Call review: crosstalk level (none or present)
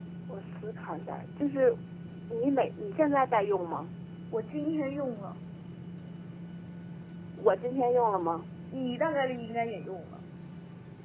none